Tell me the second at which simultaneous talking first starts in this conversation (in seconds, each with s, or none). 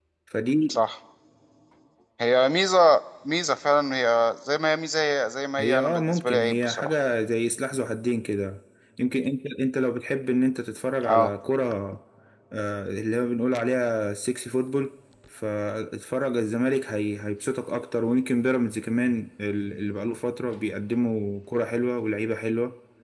5.6 s